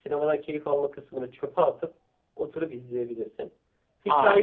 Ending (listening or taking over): listening